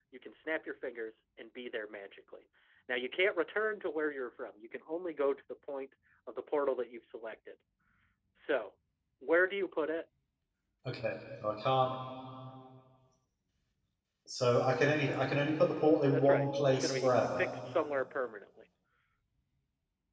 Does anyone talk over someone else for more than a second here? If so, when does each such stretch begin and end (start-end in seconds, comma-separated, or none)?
16.1-17.5